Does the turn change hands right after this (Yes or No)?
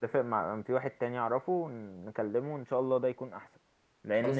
No